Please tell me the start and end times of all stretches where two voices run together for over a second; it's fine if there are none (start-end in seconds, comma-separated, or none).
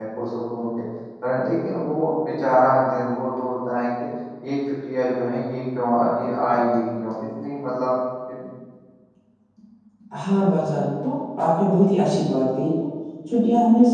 none